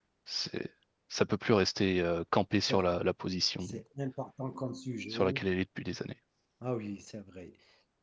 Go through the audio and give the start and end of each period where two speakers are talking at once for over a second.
none

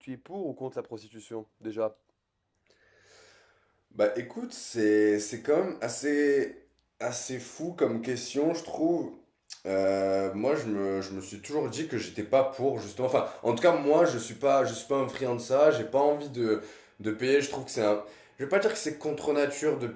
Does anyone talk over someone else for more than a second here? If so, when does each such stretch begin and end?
none

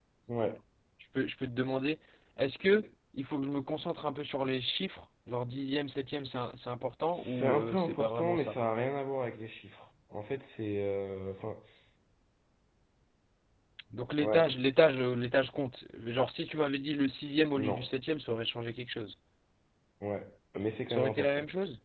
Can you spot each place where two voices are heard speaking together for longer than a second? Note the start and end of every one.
7.1-8.6

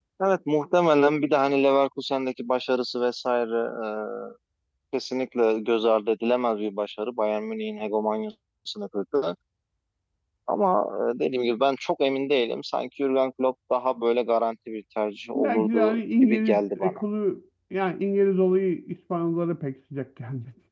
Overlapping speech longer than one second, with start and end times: 15.3-17.0

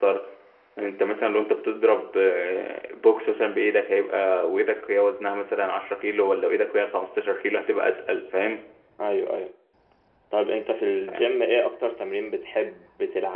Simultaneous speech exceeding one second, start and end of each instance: none

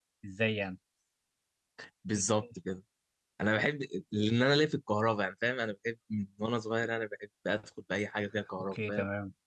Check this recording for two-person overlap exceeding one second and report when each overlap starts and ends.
none

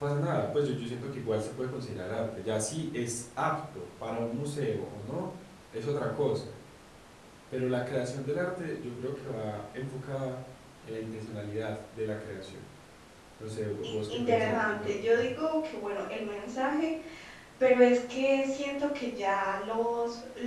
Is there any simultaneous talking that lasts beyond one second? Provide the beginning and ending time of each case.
13.8-15.3

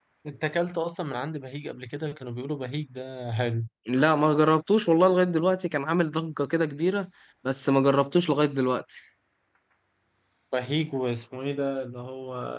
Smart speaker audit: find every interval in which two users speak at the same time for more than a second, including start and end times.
none

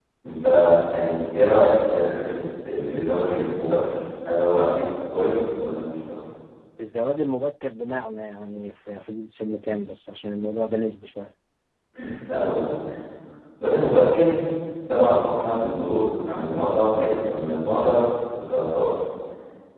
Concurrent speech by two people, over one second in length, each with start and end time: none

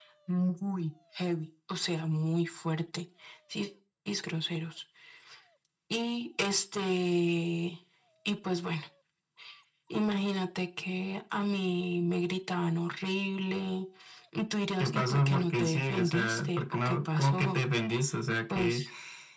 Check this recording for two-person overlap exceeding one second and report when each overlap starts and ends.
14.8-17.6

